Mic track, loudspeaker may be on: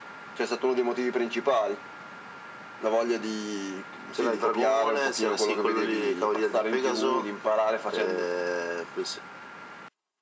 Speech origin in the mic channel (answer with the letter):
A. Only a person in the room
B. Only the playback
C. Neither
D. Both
B